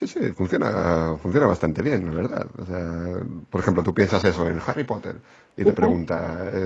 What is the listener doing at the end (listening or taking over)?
listening